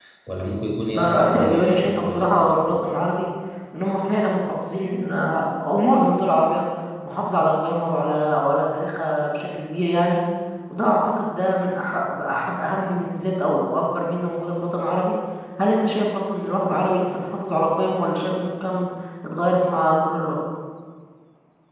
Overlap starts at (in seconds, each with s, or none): 0.9 s